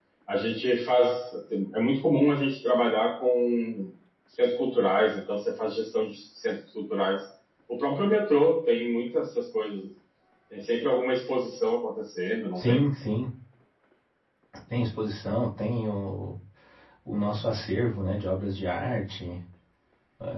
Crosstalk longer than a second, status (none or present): none